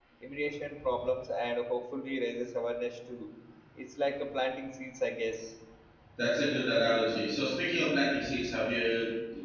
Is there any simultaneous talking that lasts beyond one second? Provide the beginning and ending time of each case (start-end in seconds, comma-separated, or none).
none